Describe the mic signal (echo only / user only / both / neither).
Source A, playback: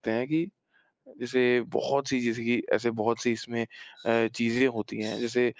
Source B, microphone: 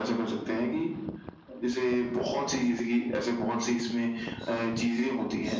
echo only